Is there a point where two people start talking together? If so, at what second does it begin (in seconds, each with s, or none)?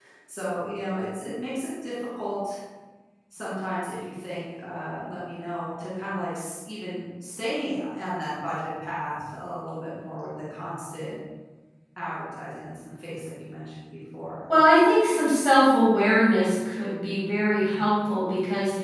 none